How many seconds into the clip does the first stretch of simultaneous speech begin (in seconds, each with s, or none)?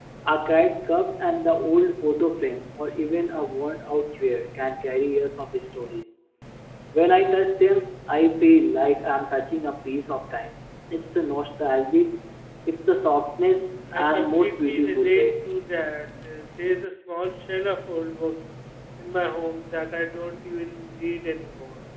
13.9 s